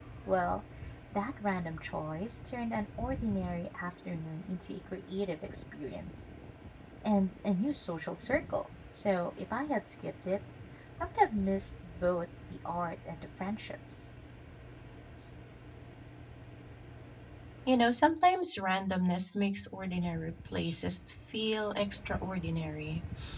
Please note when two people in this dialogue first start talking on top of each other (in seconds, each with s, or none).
none